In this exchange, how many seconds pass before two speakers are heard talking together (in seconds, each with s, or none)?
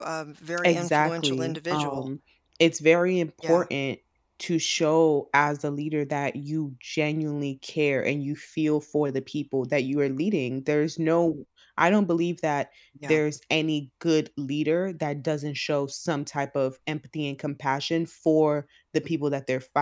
0.6 s